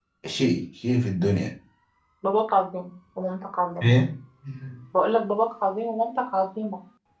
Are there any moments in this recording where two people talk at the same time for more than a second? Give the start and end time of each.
none

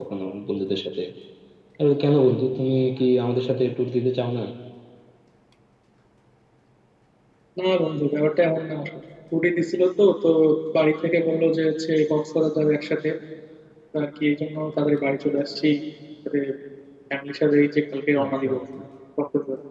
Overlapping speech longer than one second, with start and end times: none

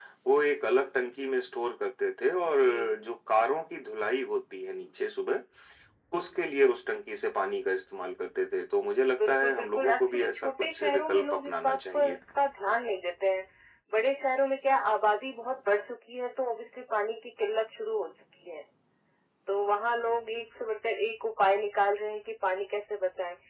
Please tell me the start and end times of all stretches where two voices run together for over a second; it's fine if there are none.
9.2-12.0

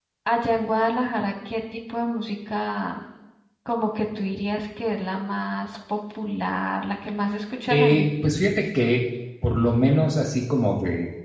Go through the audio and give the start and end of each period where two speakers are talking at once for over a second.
none

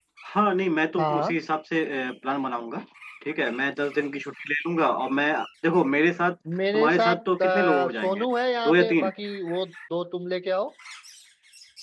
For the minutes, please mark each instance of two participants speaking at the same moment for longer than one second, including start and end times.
6.7-8.2

